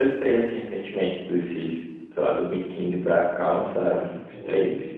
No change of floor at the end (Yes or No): No